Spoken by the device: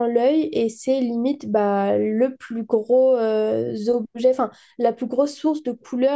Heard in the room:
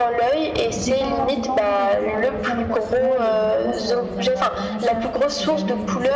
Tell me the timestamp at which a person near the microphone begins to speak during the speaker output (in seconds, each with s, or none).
0.7 s